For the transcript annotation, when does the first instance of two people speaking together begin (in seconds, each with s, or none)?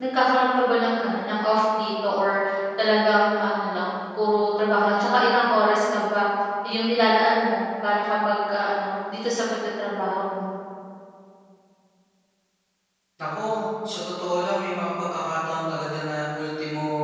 none